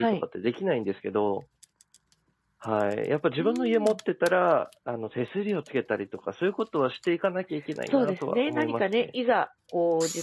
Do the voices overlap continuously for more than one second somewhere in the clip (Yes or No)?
Yes